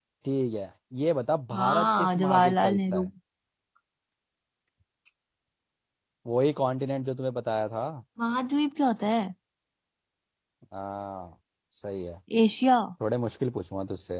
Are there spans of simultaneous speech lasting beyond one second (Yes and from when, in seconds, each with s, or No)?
Yes, from 1.5 s